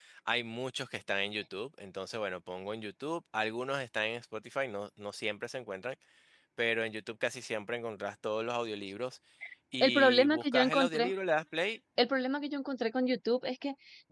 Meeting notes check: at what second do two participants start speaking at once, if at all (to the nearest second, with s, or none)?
10 s